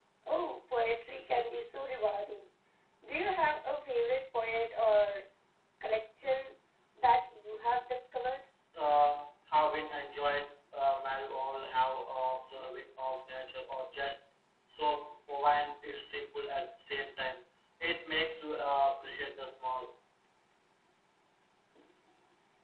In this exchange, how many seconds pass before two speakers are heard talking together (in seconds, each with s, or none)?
none